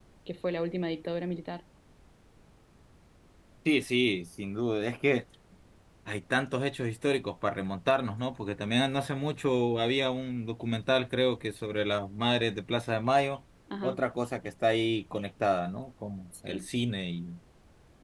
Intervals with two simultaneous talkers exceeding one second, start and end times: none

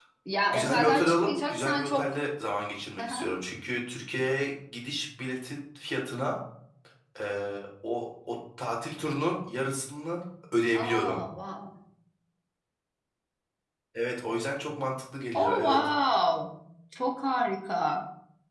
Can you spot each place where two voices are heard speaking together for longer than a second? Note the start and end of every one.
0.5-2.2

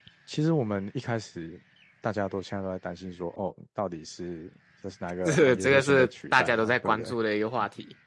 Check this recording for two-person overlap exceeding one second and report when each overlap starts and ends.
5.2-7.1

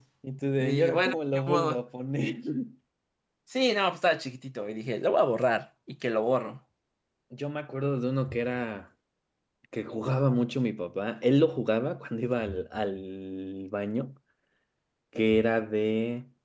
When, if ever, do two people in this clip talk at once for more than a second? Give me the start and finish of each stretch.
0.6-1.8

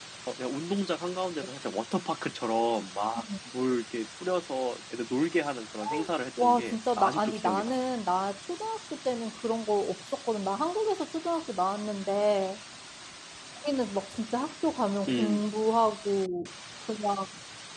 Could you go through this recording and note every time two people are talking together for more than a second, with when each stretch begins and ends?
6.4-7.7

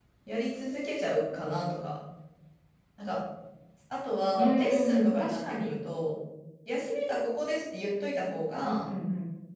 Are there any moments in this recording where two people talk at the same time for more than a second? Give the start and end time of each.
4.4-5.8

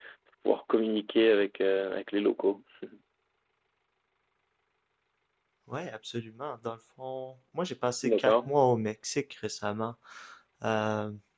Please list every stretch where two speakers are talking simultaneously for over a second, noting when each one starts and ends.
none

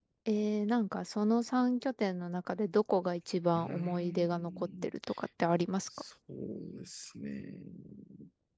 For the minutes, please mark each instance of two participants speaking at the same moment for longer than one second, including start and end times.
3.5-4.9

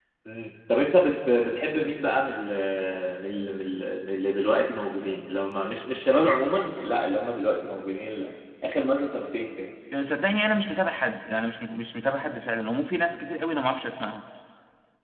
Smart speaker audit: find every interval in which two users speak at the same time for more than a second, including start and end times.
none

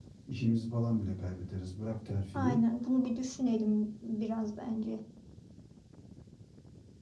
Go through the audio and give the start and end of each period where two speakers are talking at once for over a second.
none

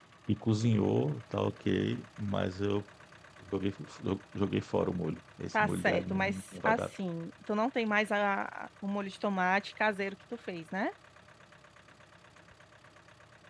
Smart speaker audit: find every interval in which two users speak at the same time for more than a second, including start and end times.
5.5-6.9

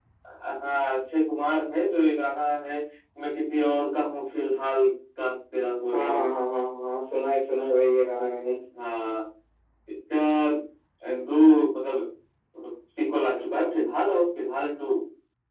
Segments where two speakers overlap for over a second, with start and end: none

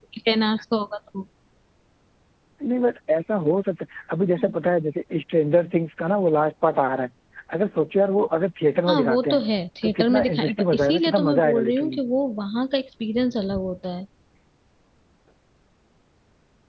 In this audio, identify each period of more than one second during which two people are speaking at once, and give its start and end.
9.8-12.0

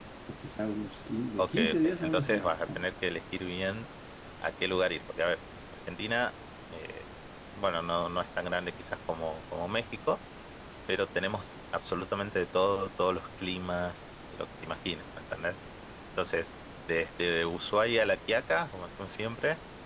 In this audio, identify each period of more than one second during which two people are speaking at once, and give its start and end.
1.4-2.9

